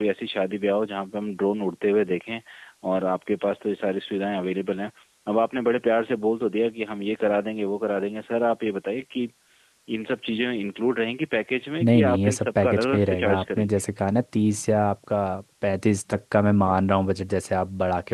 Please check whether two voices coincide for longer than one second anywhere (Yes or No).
Yes